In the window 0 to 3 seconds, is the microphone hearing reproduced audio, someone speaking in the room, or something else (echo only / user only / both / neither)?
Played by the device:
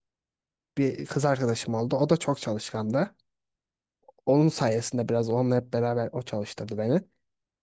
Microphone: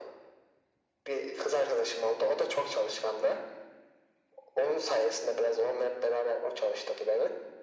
echo only